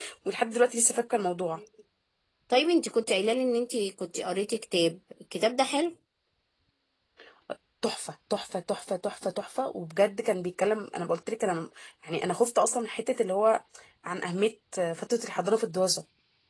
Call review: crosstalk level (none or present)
none